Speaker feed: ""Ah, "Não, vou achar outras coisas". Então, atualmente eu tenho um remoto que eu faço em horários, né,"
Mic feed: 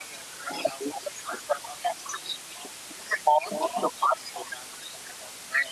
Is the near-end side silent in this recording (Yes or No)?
Yes